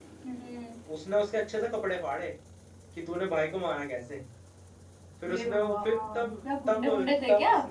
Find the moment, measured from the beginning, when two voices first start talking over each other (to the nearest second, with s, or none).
5 s